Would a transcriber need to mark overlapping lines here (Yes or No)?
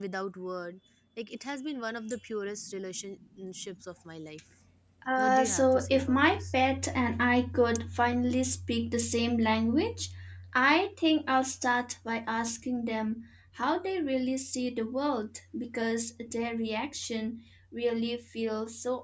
Yes